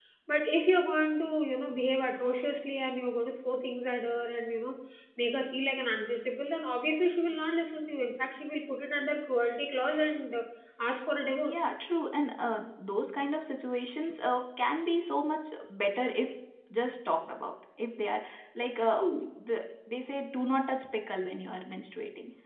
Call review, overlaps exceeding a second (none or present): none